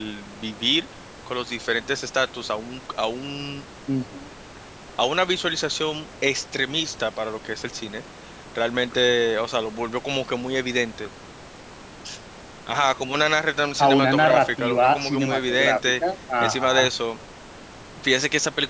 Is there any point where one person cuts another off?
Yes, from 13.8 s

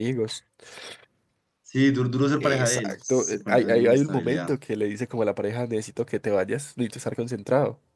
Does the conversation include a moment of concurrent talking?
Yes, from 2.4 s

